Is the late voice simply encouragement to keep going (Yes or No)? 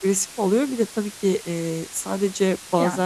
Yes